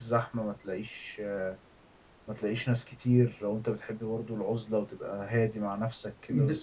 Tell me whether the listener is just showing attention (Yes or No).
No